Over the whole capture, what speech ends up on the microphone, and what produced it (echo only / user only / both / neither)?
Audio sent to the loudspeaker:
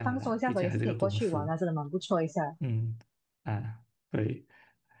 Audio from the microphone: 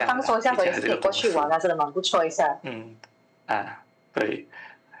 echo only